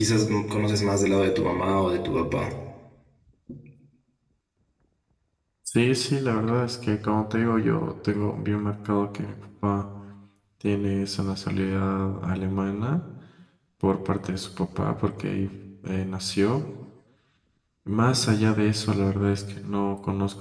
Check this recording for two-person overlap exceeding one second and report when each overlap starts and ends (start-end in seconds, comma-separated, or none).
none